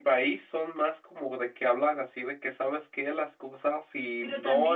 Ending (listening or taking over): taking over